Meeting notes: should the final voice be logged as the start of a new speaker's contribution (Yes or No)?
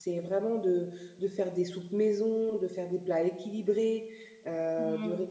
Yes